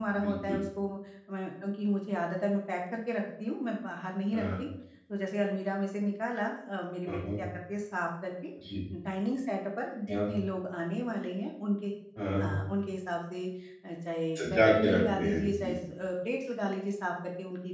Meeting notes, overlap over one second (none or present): present